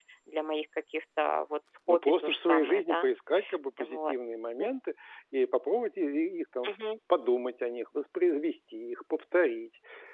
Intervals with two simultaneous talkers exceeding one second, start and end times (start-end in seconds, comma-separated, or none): 1.9-3.1